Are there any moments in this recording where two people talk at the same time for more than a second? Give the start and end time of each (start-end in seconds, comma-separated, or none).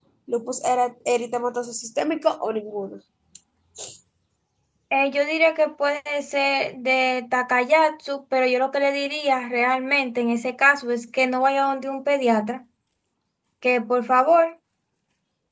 none